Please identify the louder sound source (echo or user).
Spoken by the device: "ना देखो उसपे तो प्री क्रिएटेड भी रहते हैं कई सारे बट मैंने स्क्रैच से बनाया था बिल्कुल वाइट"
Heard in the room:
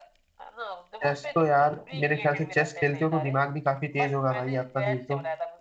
user